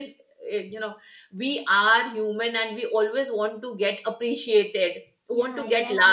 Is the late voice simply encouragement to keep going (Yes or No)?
No